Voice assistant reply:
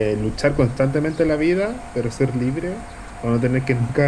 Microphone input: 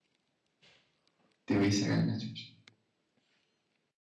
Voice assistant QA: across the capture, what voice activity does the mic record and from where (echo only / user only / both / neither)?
user only